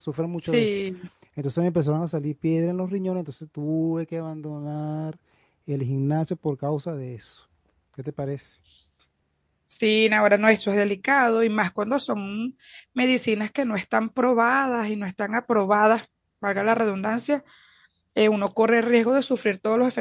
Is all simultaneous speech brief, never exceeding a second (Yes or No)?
Yes